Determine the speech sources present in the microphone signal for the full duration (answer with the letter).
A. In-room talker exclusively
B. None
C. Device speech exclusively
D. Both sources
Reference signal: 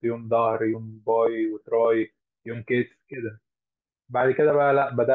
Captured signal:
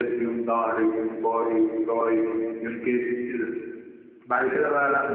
C